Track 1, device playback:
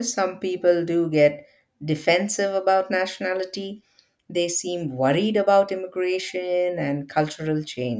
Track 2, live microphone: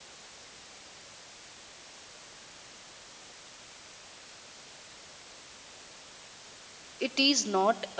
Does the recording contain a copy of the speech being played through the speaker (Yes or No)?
No